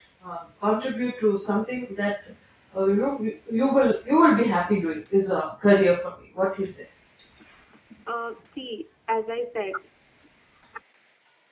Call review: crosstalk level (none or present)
none